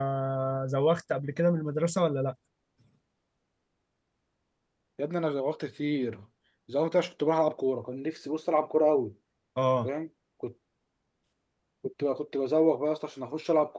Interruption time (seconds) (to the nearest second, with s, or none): none